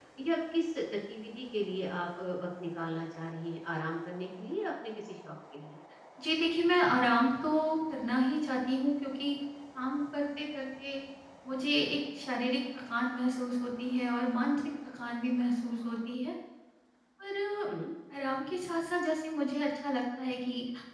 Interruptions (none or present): none